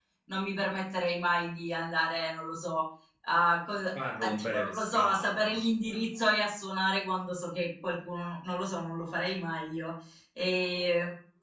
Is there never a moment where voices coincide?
No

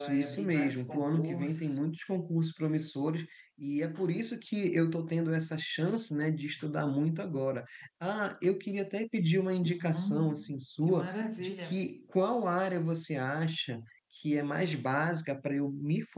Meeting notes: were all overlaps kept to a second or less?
No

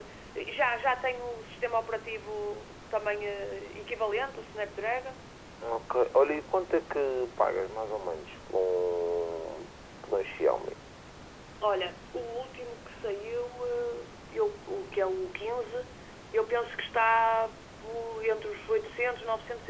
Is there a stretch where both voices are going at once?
No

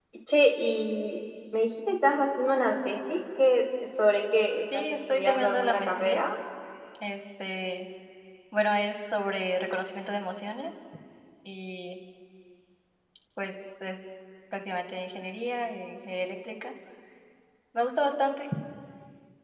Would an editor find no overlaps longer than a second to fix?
No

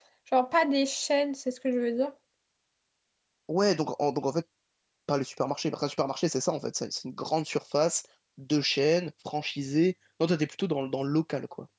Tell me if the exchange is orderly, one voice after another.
Yes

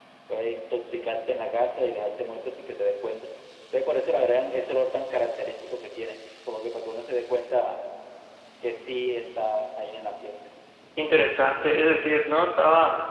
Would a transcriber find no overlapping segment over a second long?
Yes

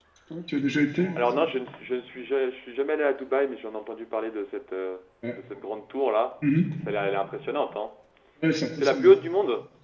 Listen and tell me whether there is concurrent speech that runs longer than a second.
No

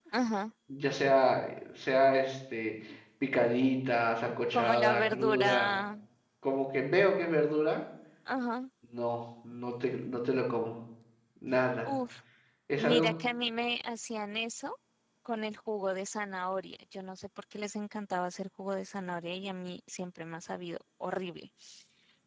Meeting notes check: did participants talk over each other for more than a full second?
Yes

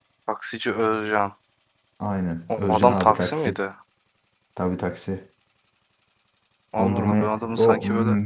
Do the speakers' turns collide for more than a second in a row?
Yes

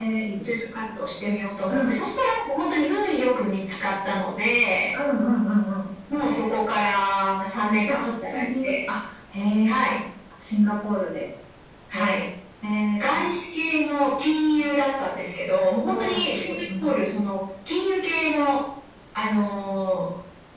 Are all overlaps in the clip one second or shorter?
No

